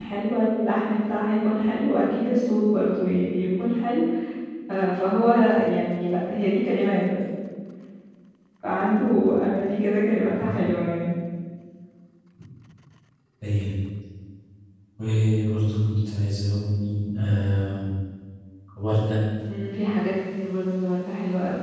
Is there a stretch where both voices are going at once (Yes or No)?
No